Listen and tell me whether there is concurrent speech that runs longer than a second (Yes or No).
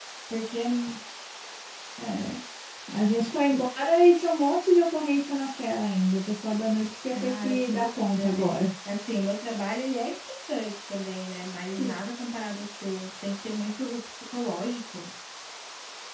Yes